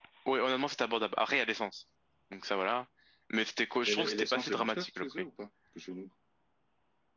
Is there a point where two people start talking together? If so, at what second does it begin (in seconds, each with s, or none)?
3.9 s